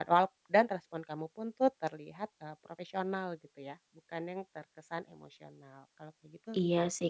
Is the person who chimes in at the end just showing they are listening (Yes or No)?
No